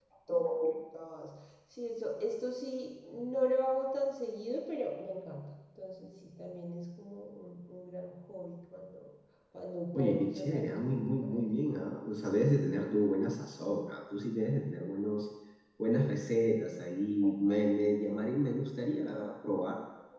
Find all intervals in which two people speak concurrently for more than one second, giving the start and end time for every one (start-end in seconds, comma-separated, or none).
9.9-11.5